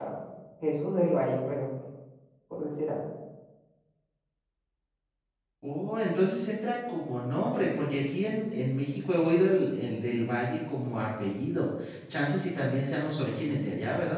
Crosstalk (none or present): none